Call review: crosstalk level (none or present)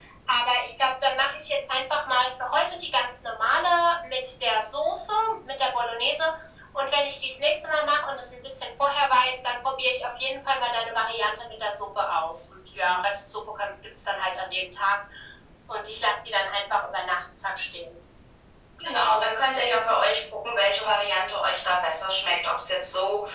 none